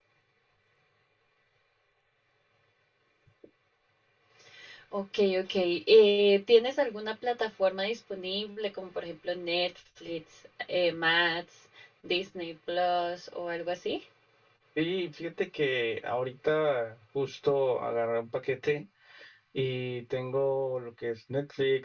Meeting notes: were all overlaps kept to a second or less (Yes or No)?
Yes